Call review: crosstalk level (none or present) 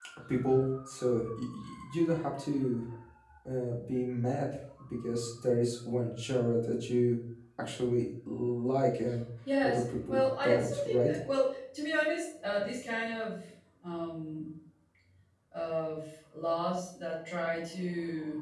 present